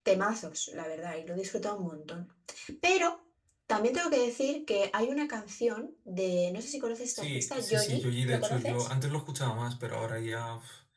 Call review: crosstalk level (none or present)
present